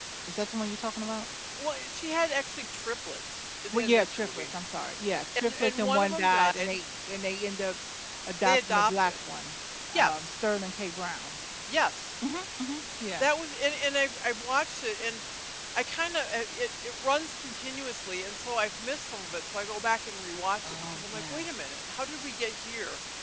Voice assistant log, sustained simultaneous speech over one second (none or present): present